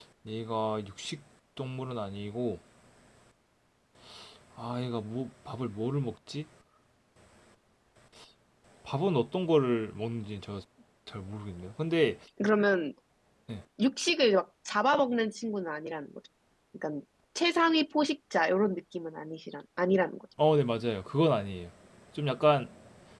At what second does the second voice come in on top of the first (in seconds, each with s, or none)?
none